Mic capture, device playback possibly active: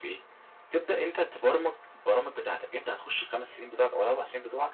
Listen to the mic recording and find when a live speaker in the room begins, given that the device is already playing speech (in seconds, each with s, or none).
none